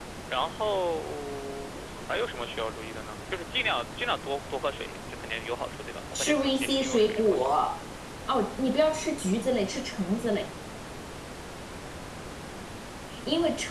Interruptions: present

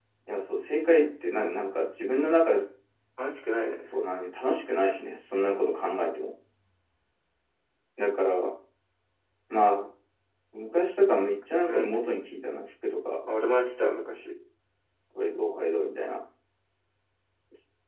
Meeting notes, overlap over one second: none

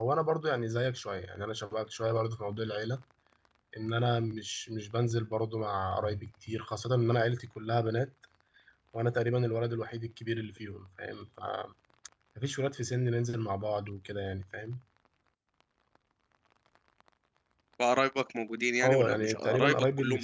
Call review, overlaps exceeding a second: present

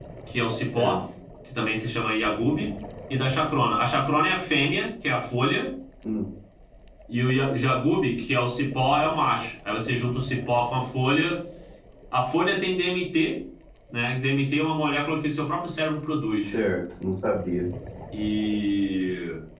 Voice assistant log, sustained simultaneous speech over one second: none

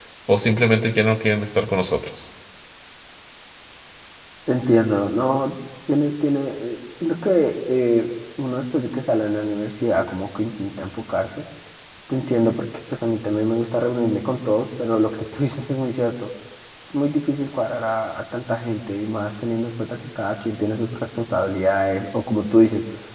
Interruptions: none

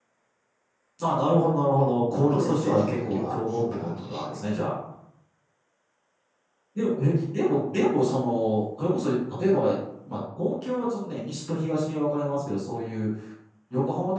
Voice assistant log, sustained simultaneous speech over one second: present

